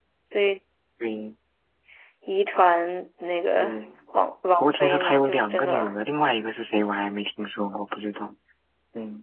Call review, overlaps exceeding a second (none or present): present